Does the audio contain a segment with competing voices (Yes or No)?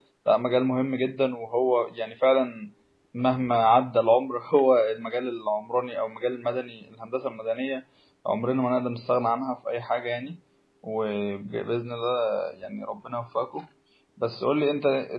No